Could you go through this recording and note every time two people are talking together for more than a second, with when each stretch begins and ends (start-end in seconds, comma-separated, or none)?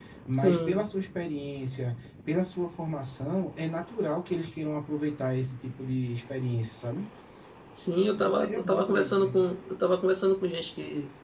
8.1-9.4